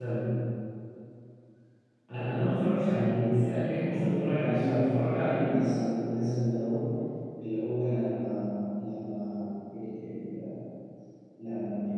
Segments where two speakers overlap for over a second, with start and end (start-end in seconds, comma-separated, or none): 3.0-5.4